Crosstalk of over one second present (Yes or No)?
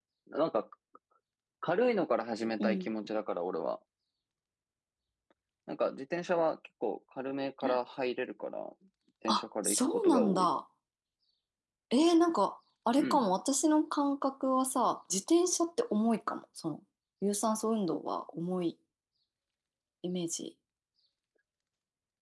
Yes